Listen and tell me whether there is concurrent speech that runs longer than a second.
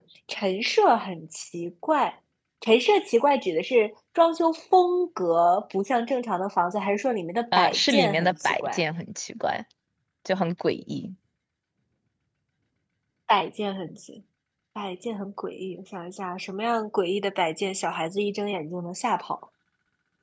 Yes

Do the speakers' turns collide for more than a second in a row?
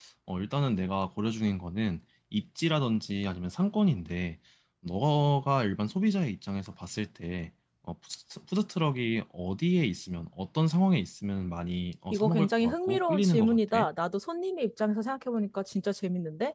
Yes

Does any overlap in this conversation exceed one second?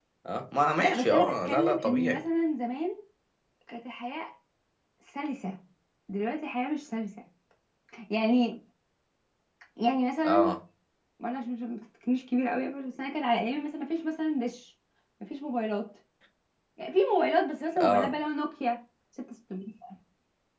Yes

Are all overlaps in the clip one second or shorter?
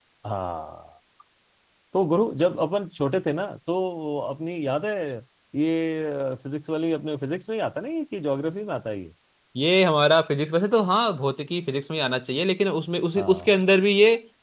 Yes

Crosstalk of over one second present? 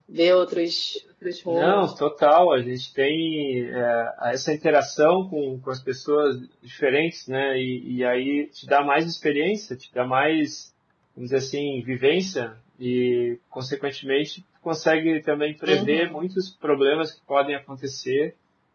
No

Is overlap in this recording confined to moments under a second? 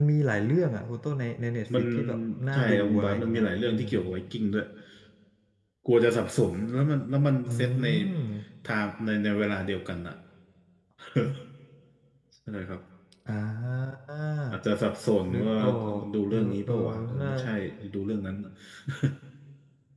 No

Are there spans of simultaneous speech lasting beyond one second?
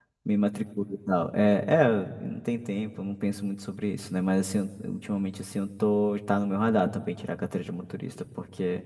No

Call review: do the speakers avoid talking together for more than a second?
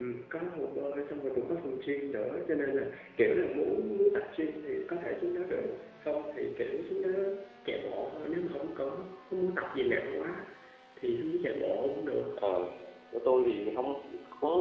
Yes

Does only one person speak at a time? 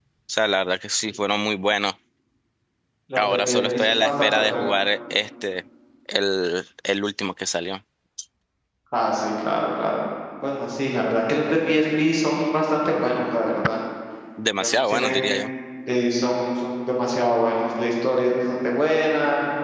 No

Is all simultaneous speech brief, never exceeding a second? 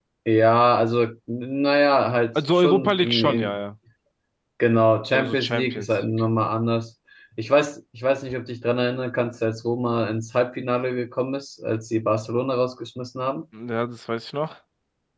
No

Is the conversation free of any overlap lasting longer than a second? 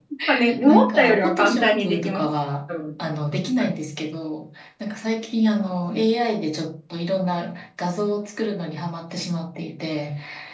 No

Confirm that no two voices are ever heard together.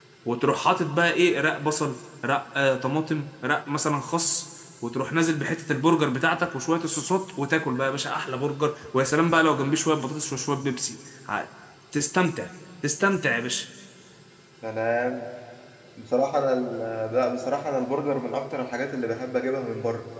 Yes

